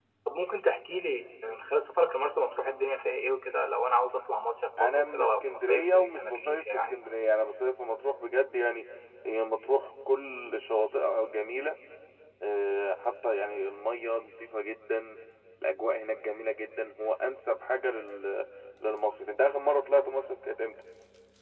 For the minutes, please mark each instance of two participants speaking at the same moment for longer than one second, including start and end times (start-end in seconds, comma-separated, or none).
4.8-7.0